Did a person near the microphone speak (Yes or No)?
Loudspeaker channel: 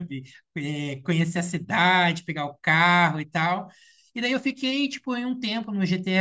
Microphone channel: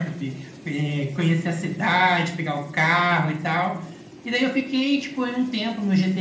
No